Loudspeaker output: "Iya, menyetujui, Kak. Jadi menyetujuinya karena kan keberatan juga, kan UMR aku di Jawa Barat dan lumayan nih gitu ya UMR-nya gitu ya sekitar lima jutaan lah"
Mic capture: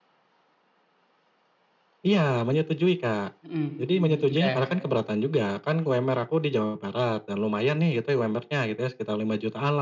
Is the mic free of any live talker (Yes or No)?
No